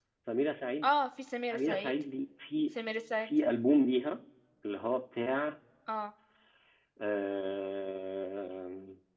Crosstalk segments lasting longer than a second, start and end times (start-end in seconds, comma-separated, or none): none